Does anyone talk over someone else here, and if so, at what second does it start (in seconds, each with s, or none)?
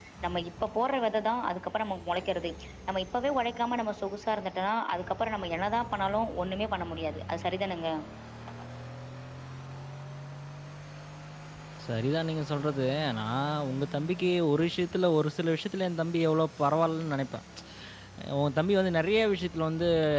none